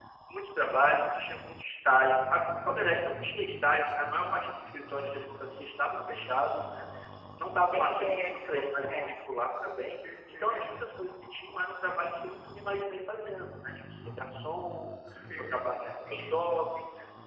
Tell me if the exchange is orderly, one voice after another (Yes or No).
No